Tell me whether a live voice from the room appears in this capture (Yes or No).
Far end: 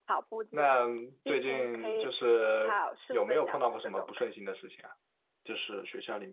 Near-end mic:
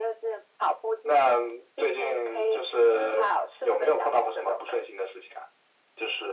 No